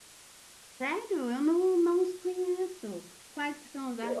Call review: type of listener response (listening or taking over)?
taking over